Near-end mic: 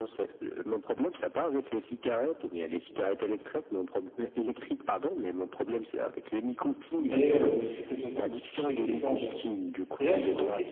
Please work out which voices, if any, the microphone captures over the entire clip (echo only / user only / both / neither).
both